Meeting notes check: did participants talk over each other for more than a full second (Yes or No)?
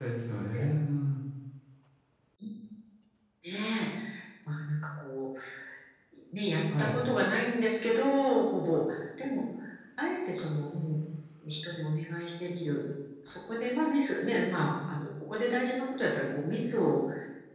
No